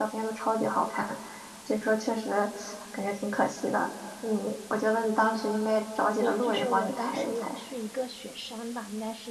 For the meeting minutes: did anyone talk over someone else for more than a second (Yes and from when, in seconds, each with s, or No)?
Yes, from 6.2 s